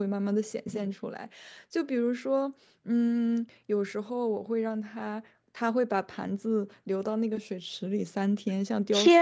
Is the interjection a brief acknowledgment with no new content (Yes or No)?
No